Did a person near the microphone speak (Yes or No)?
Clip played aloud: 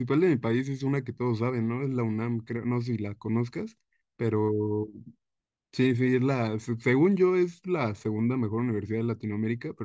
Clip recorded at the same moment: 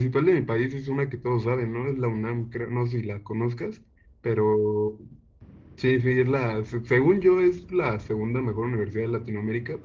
No